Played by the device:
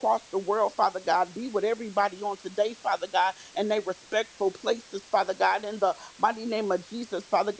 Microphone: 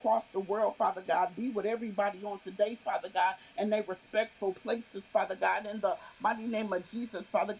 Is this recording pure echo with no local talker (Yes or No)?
Yes